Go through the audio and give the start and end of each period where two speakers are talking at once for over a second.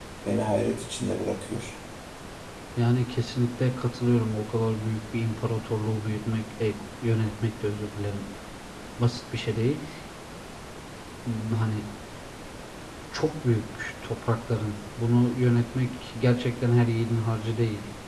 none

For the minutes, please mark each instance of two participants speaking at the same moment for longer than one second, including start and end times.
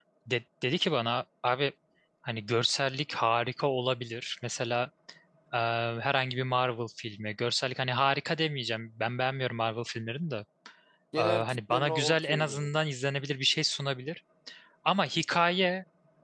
11.2-12.7

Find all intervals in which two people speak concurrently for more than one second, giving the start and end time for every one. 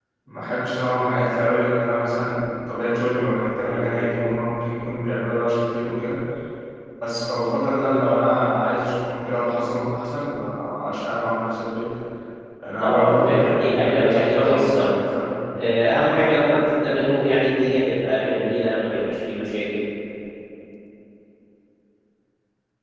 12.8-14.9

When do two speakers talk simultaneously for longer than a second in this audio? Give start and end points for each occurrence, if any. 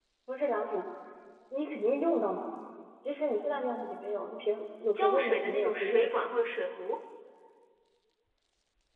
5.0-6.2

